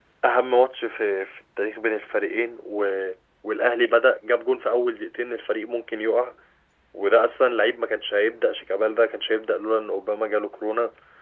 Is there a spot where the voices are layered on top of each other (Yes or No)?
No